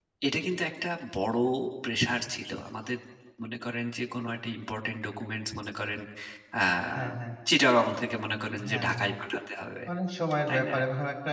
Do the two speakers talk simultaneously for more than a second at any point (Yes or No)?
No